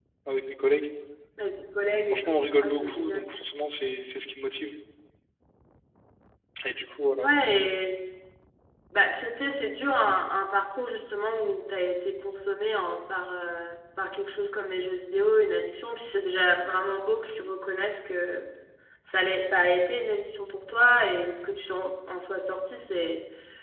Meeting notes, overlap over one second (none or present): present